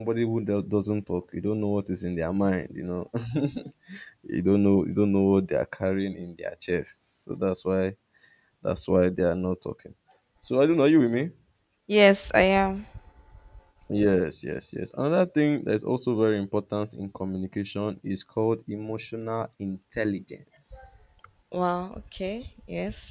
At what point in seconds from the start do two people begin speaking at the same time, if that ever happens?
none

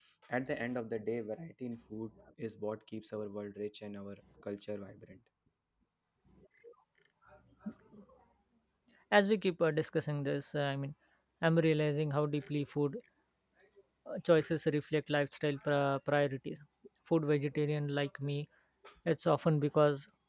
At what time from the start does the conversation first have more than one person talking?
none

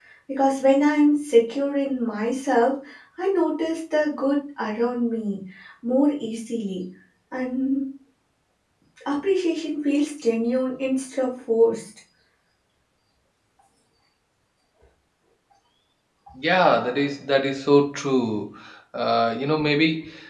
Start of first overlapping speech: none

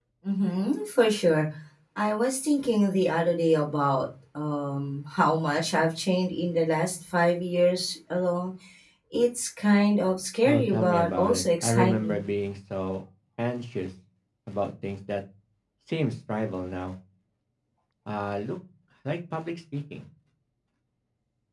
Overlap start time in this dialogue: 10.4 s

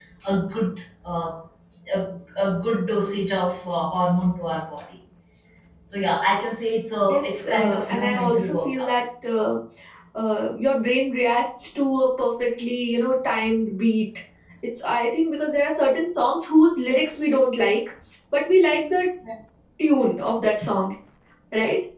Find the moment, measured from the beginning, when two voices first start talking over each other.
7.1 s

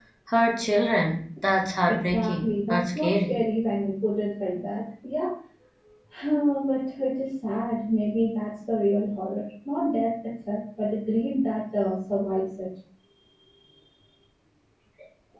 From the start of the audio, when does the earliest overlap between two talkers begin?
1.9 s

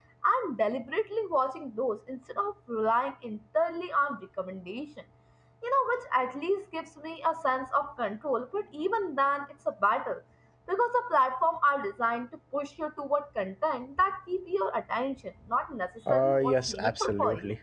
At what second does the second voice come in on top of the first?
16.1 s

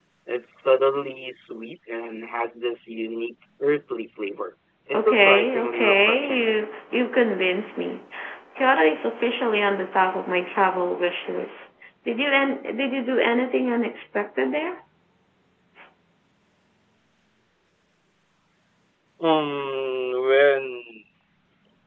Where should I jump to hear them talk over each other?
4.9 s

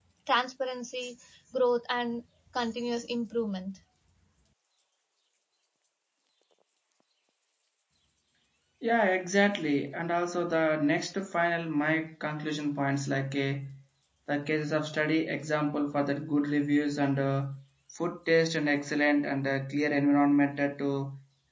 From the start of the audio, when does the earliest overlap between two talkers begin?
none

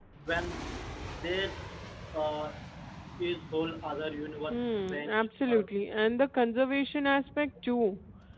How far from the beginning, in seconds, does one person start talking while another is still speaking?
4.5 s

